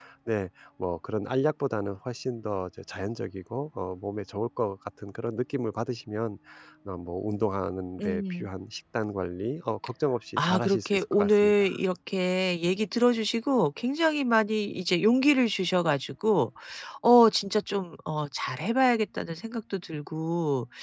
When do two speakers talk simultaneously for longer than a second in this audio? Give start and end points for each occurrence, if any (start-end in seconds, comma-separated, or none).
10.4-11.8